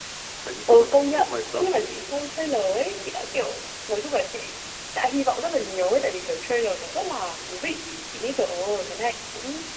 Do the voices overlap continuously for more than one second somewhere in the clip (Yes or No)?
Yes